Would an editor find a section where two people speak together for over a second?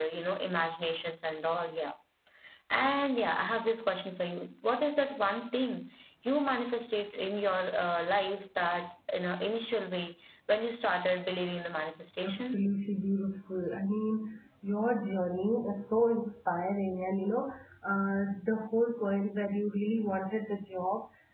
No

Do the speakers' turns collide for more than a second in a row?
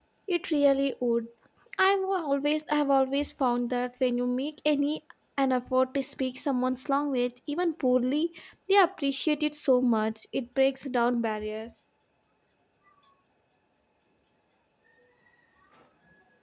No

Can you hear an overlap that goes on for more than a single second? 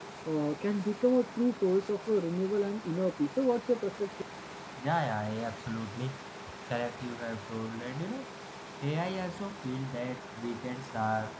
No

